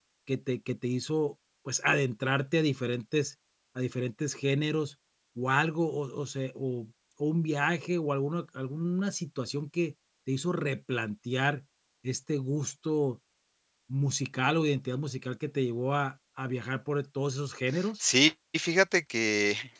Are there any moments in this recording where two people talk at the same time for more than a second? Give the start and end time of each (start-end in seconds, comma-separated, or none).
none